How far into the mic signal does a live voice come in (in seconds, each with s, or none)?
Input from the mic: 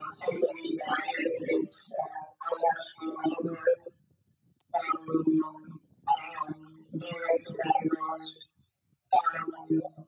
none